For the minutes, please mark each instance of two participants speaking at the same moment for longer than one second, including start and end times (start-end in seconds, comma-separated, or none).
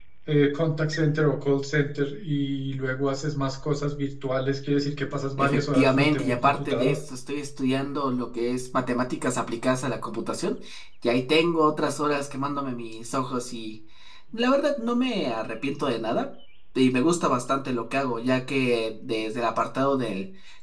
5.4-7.0